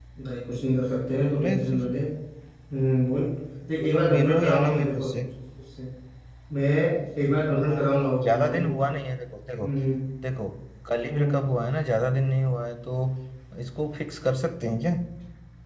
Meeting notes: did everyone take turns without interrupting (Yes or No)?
No